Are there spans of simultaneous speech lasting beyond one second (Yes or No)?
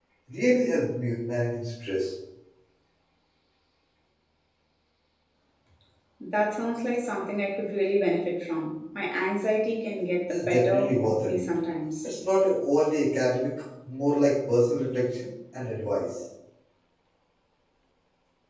Yes